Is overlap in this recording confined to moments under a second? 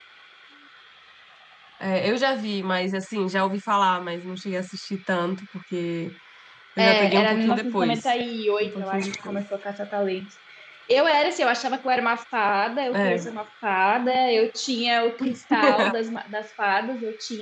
No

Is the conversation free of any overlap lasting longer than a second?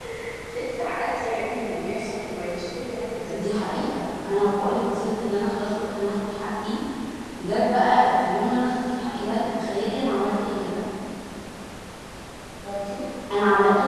Yes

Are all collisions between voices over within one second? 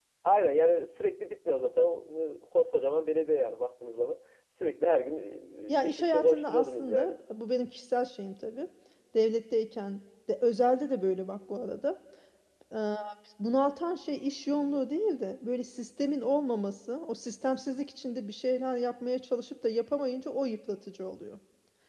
No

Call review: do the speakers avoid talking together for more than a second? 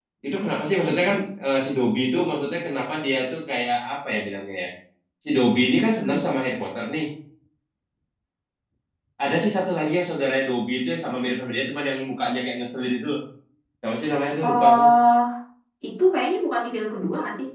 Yes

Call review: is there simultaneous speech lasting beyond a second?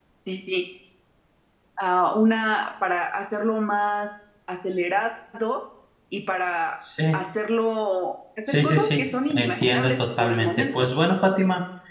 Yes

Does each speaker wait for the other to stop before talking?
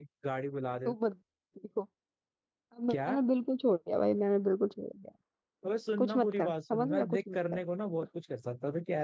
No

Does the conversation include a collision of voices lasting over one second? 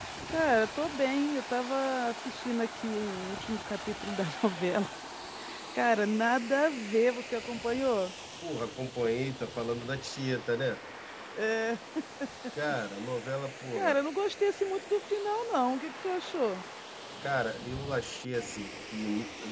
No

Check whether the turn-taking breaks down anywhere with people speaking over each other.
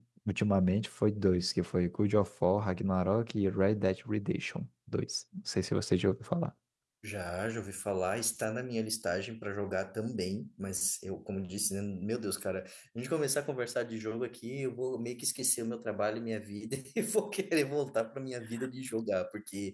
No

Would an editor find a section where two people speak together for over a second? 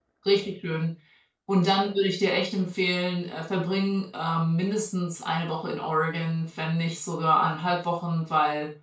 No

